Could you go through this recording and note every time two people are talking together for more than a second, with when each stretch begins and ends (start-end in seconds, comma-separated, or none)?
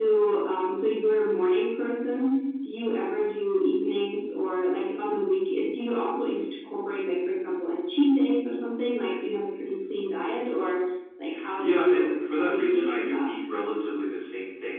11.5-13.3